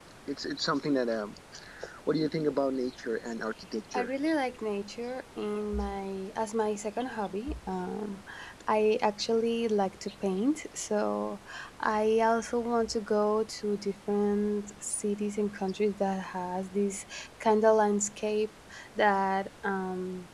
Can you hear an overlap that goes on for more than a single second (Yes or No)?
No